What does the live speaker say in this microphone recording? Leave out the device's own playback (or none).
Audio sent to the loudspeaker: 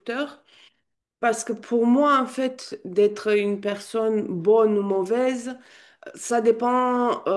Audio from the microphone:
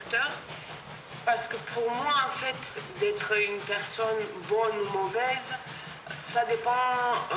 none